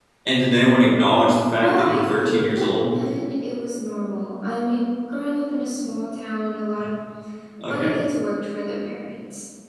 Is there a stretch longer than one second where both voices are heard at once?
Yes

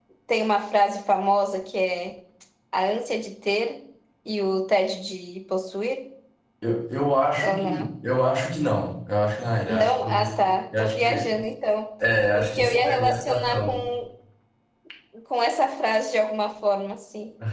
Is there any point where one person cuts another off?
Yes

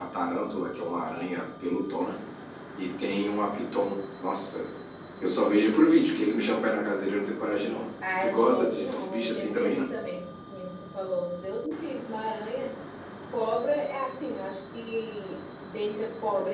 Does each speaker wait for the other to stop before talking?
No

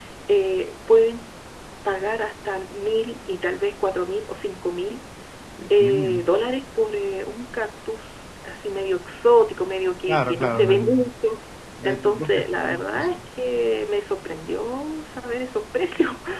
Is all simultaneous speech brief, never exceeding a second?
No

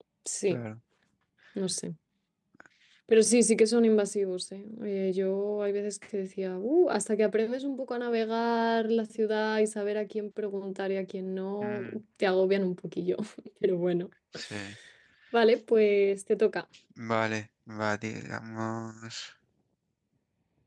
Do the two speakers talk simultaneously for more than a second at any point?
No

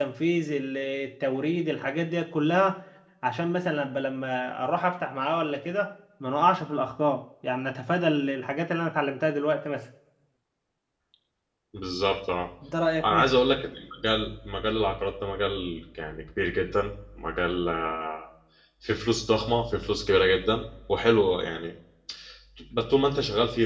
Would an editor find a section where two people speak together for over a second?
No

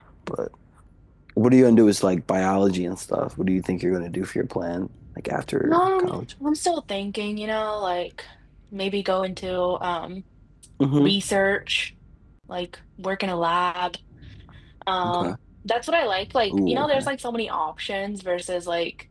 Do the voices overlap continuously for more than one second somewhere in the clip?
No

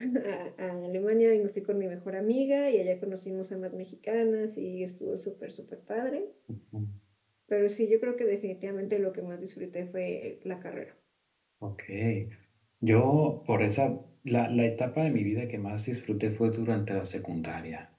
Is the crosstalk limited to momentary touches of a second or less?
Yes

